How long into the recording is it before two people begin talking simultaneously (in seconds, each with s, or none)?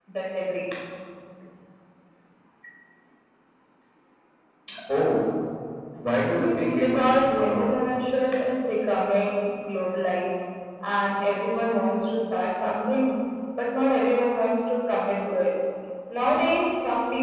6.3 s